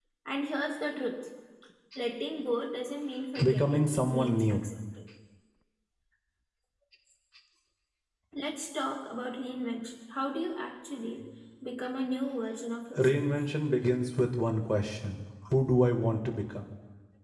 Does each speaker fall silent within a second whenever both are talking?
No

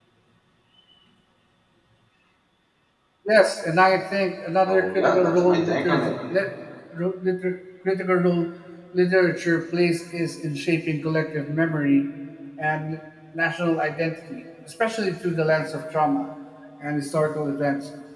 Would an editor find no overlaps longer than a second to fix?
No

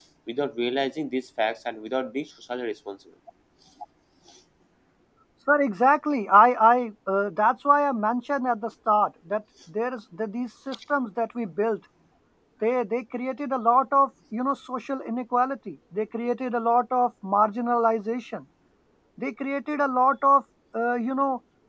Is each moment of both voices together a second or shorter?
Yes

